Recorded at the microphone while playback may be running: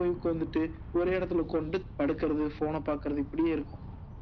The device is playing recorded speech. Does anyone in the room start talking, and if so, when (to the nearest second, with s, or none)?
none